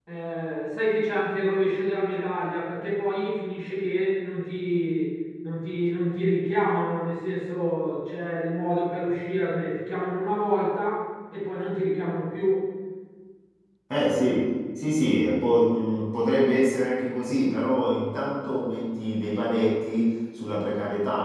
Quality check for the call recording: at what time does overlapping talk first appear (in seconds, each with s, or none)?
none